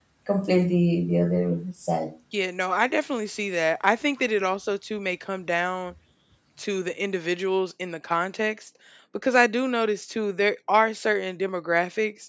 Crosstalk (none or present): none